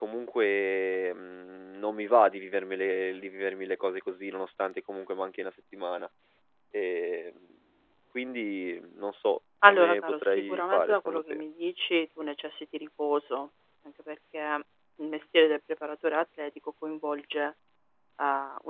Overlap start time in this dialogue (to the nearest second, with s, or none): 10 s